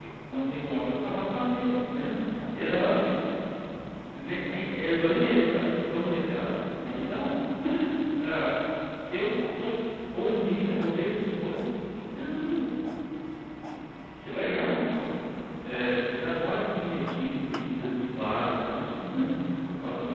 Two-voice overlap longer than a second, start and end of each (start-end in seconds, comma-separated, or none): none